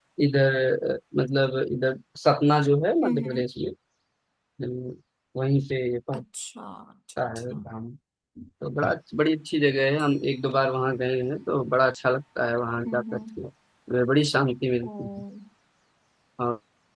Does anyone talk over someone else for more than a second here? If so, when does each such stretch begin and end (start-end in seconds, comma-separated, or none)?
none